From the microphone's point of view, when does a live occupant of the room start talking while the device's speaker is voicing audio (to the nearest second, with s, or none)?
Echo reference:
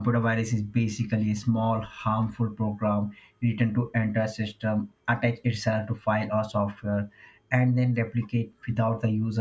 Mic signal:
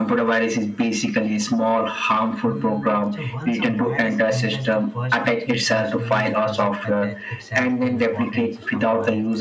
2 s